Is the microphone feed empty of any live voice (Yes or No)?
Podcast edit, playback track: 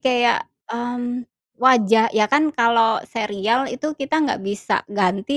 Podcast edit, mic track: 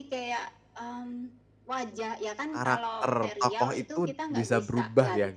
No